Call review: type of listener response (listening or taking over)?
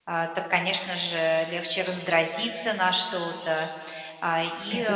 listening